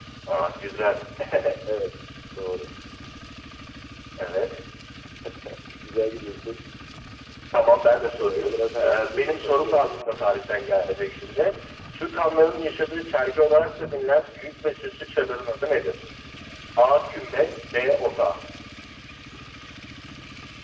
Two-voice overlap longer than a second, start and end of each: 8.2-10.2

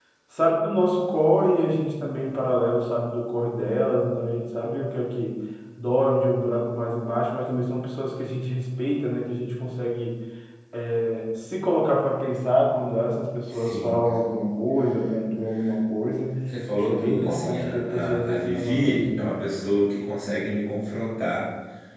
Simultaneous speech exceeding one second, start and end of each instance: 16.7-19.3

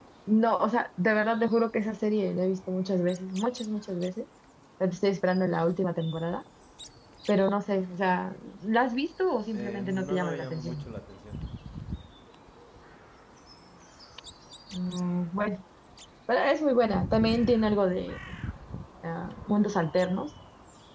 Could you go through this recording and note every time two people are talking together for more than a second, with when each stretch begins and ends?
9.5-10.8

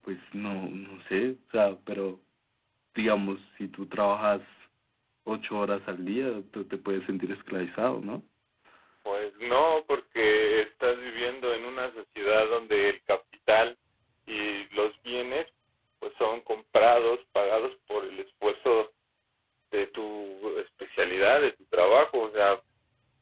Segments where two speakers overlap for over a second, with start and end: none

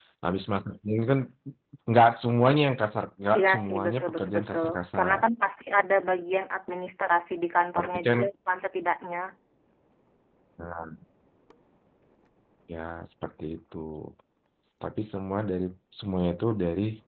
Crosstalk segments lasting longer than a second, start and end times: 3.4-5.2

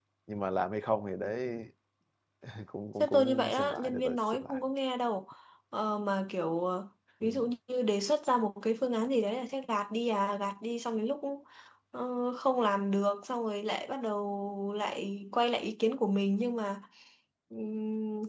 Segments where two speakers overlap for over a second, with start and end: 3.0-4.6

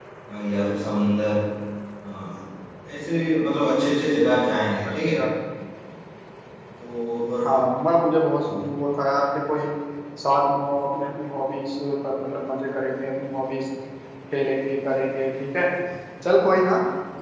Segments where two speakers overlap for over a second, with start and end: none

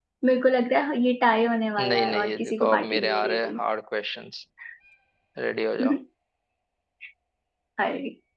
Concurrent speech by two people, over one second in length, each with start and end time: 1.8-3.6

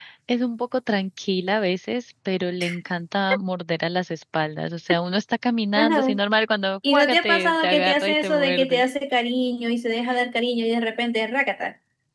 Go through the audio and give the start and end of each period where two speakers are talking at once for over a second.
6.9-8.8

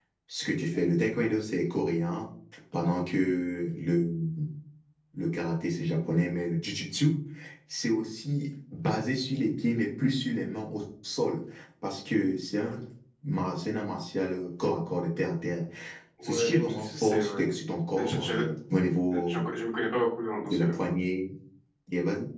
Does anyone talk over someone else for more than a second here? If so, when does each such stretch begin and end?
16.2-17.4

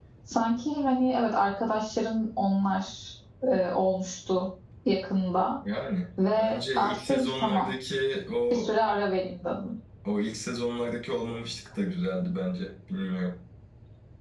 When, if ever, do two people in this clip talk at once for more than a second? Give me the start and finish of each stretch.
6.3-7.7

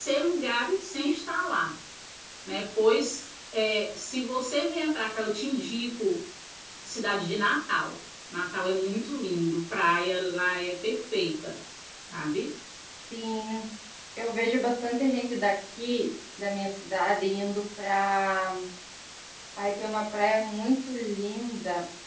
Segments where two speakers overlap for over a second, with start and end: none

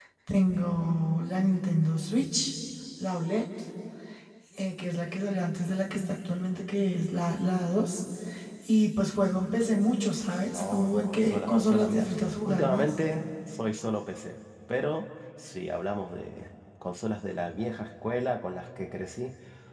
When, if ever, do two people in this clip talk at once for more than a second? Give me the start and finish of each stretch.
10.5-12.9

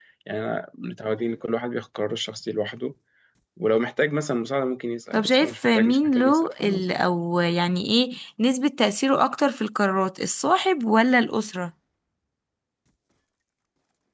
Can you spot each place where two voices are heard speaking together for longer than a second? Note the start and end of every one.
5.1-7.0

